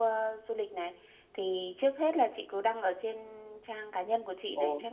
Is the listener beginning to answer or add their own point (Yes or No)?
No